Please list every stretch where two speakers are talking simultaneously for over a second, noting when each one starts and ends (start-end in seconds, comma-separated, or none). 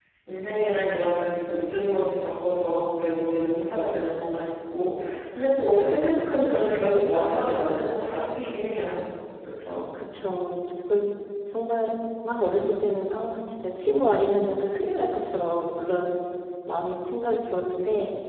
none